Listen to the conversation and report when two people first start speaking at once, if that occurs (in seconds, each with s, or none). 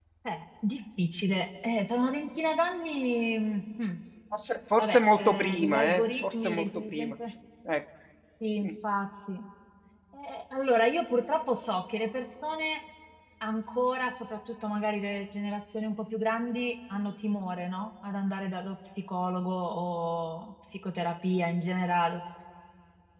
4.8 s